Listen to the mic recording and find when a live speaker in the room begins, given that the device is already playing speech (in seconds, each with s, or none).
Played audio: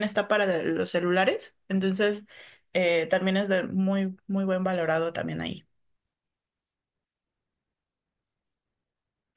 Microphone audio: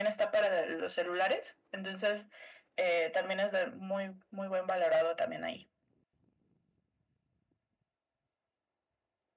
none